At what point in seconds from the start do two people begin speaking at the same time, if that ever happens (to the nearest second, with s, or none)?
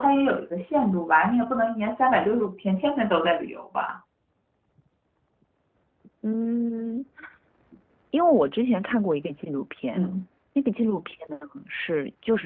none